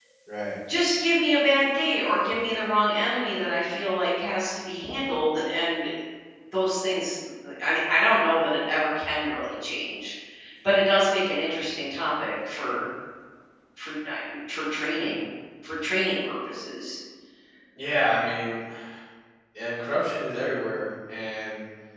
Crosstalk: none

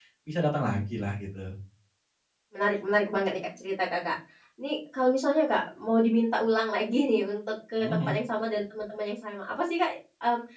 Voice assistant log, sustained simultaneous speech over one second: none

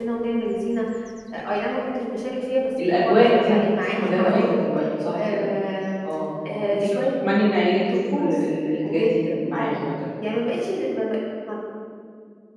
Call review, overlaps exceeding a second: present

